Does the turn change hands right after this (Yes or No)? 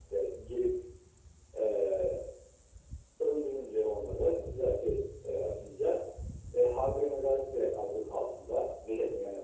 Yes